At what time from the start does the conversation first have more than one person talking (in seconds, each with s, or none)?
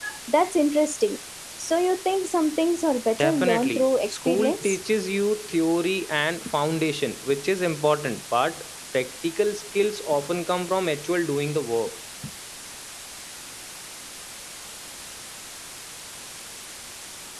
3.2 s